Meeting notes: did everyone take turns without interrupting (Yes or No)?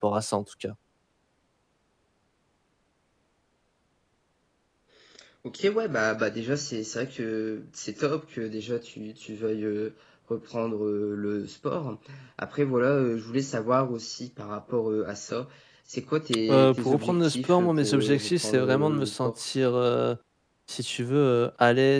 No